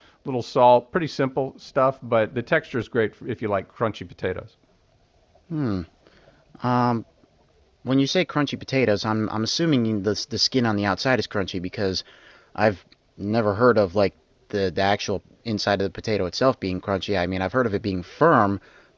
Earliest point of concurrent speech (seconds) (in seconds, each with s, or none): none